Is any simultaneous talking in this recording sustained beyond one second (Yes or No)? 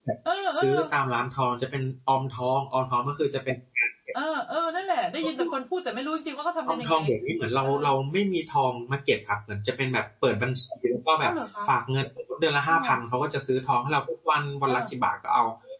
No